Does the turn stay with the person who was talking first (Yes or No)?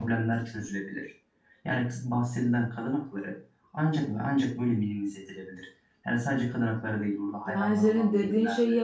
No